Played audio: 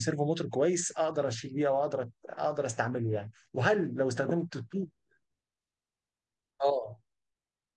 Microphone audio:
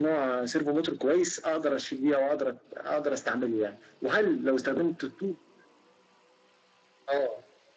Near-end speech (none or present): none